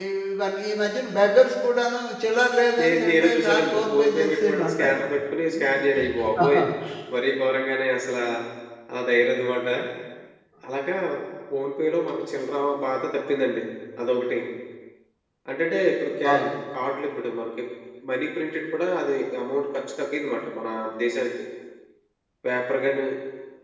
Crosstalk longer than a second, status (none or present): present